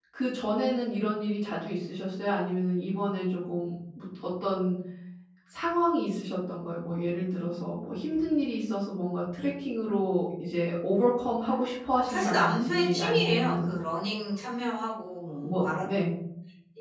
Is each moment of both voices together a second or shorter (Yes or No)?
No